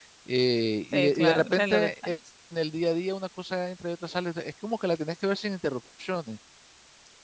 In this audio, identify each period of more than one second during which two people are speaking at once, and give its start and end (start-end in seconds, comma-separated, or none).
0.9-2.1